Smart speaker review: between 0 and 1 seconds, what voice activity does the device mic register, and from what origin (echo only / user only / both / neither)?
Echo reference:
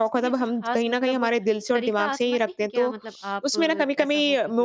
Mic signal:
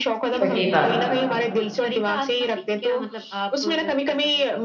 both